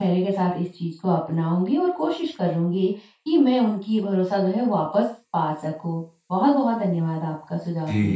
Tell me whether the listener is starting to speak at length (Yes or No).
Yes